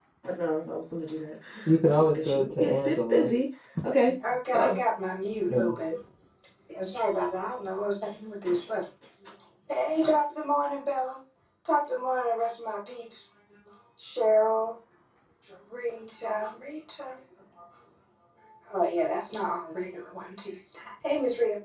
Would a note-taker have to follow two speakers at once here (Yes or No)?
Yes